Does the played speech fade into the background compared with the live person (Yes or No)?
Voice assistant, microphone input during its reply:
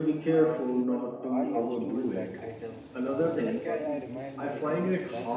No